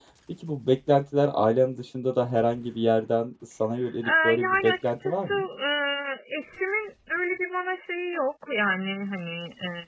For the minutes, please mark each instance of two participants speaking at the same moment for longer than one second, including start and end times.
4.0-5.4

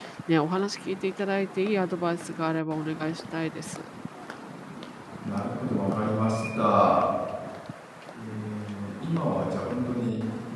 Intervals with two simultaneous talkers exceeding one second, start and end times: none

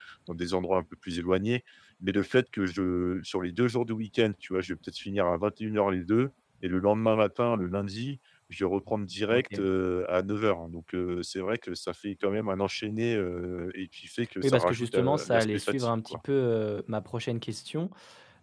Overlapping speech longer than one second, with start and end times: 14.4-16.2

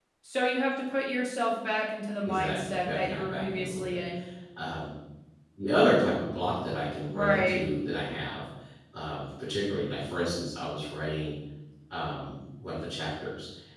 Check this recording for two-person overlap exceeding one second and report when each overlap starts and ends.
2.2-4.0

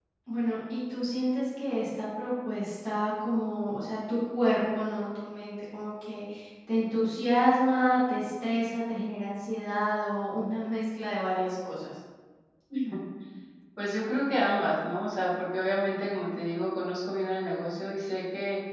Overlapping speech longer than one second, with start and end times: none

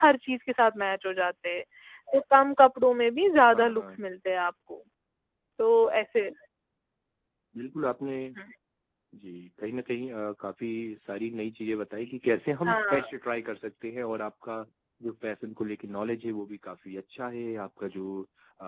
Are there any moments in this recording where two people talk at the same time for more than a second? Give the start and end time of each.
none

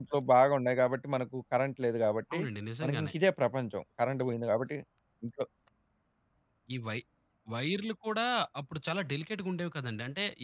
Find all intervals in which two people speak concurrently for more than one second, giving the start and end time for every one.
none

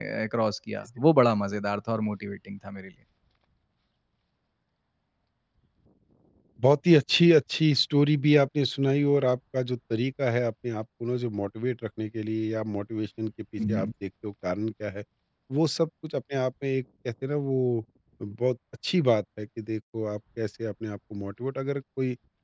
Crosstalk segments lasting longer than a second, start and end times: none

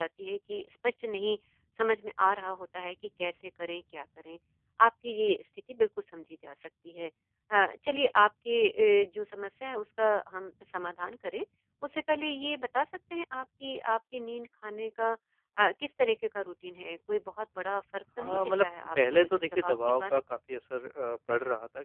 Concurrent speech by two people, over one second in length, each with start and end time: 18.2-20.2

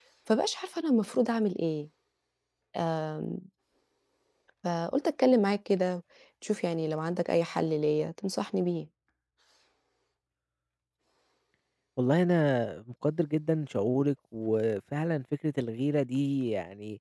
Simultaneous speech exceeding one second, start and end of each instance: none

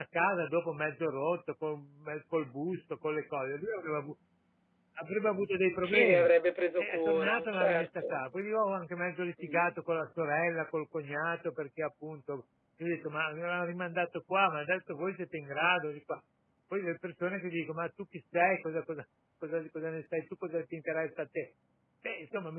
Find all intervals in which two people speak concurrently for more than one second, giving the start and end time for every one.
6.8-8.0

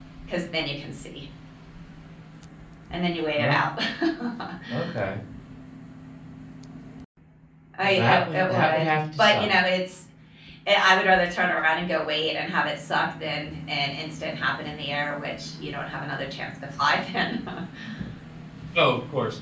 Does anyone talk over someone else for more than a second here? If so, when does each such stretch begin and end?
7.8-9.5

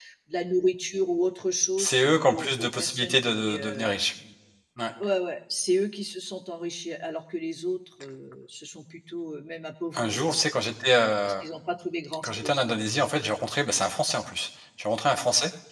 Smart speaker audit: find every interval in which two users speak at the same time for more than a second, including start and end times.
1.8-3.9

